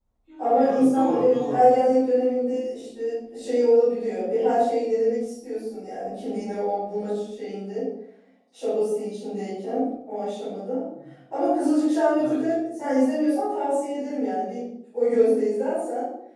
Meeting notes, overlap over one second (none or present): present